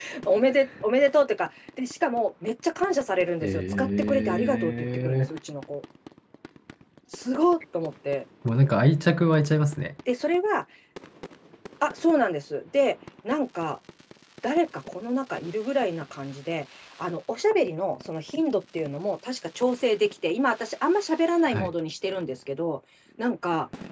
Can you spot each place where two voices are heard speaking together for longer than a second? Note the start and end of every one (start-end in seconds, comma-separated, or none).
3.4-5.3